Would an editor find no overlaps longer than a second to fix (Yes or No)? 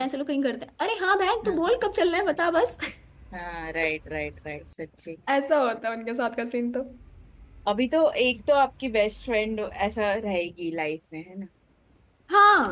Yes